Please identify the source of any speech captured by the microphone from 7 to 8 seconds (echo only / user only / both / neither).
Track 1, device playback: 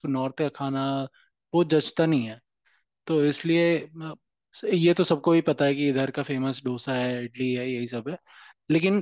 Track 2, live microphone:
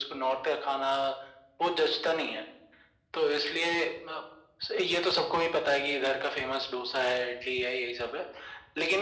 echo only